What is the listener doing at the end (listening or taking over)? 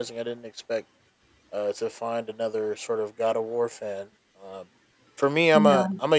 listening